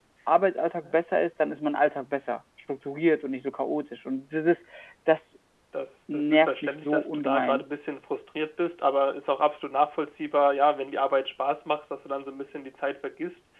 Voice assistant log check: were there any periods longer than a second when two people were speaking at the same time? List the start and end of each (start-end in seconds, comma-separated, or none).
6.1-7.6